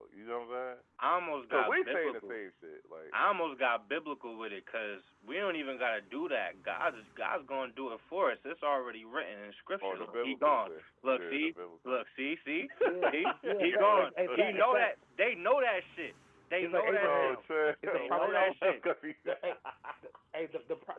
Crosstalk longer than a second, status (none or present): present